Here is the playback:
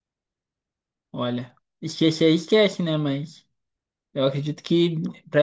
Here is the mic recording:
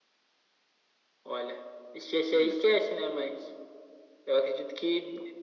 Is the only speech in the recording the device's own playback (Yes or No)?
No